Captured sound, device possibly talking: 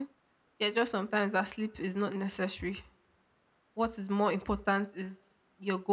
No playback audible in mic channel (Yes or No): Yes